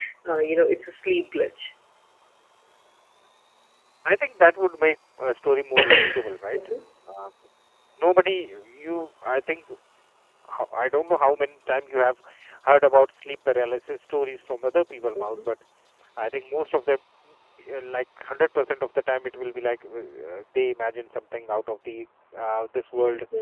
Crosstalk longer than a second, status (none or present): none